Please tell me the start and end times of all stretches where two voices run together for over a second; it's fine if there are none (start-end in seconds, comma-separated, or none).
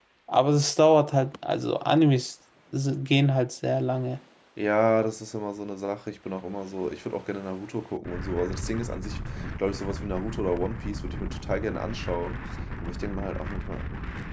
none